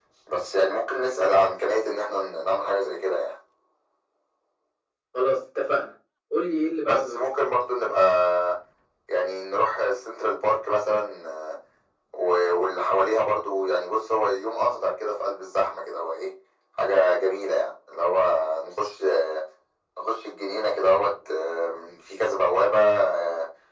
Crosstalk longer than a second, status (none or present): none